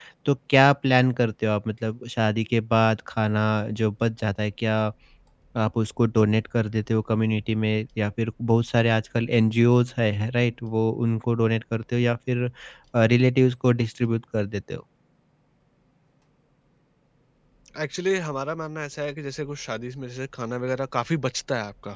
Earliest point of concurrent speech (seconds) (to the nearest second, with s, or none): none